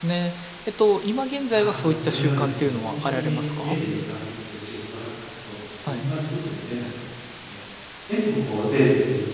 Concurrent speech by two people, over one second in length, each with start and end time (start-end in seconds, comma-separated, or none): 1.5-3.8